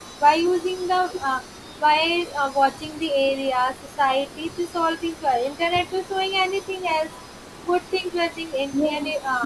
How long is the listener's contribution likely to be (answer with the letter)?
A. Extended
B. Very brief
A